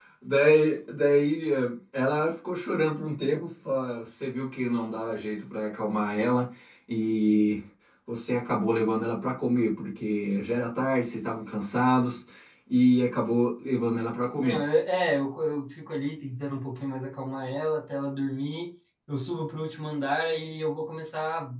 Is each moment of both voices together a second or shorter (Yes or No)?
Yes